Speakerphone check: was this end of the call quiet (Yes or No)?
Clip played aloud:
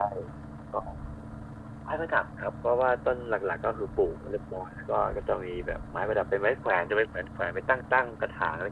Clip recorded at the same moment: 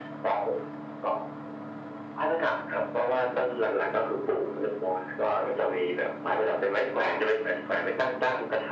Yes